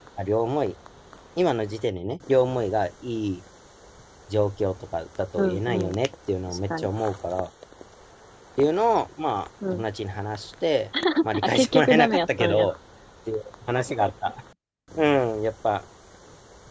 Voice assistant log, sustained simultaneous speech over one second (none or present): present